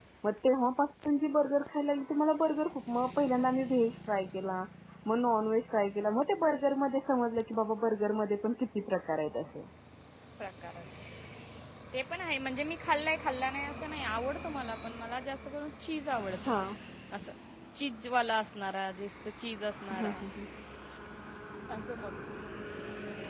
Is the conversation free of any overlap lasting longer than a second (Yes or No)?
Yes